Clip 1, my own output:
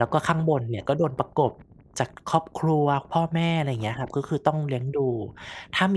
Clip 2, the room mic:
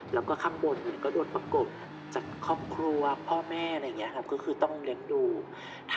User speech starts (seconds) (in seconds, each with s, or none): none